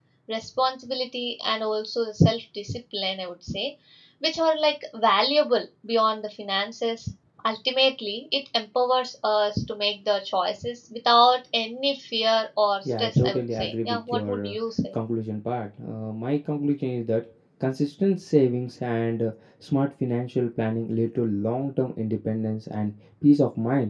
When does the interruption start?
13 s

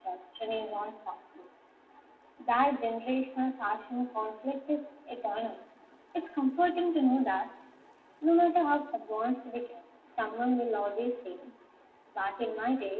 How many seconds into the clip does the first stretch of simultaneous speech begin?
none

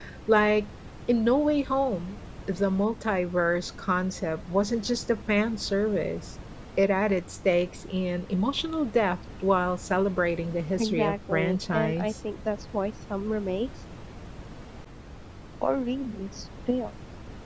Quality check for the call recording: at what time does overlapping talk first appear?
11 s

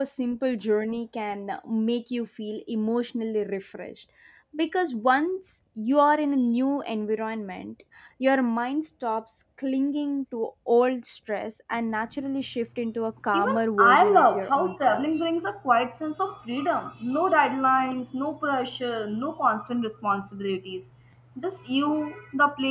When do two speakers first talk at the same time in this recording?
13 s

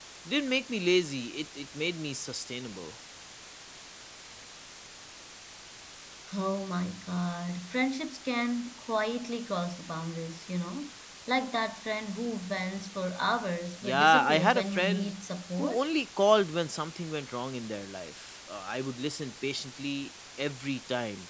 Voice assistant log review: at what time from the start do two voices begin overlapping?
14 s

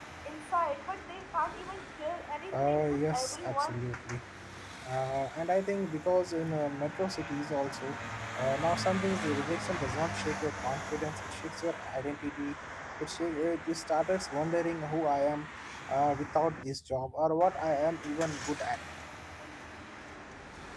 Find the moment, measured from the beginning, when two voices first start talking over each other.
2 s

